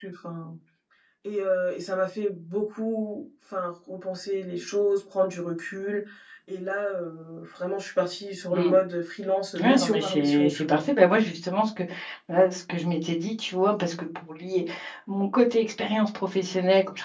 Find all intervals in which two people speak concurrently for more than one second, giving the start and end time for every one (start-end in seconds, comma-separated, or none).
9.6-10.8